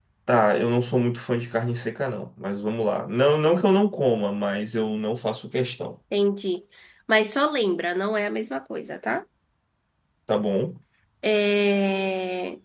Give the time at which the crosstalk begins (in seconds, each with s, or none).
none